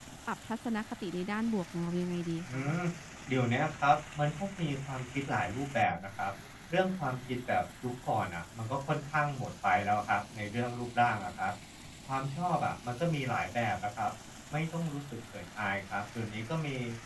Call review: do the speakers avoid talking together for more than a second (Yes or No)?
Yes